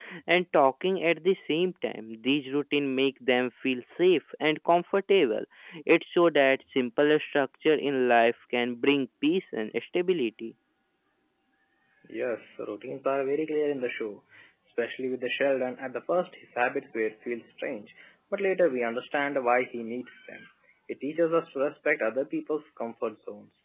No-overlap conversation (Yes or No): Yes